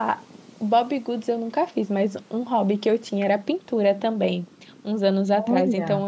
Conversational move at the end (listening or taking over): listening